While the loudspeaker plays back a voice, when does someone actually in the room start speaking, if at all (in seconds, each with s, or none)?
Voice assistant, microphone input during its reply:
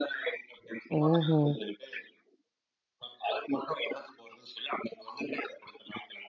1.0 s